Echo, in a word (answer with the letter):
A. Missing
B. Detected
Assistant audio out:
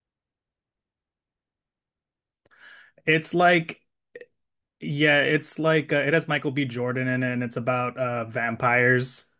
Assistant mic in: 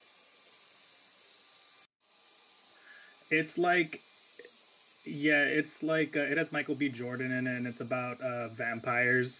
B